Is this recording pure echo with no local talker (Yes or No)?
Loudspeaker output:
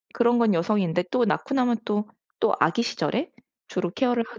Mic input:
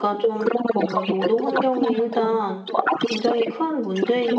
No